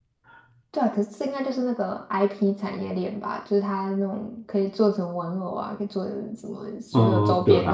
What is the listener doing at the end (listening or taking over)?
taking over